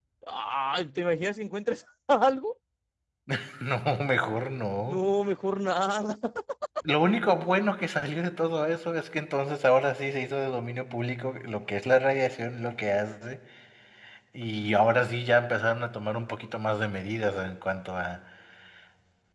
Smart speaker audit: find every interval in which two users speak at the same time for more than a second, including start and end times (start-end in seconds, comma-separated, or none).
none